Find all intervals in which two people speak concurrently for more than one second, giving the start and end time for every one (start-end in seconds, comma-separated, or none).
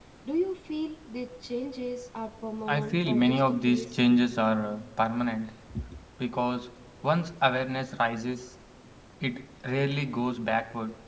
2.7-4.0